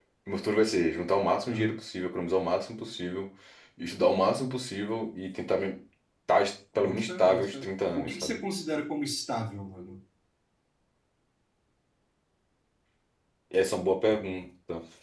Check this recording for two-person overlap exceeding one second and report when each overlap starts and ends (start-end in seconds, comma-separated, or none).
6.8-8.4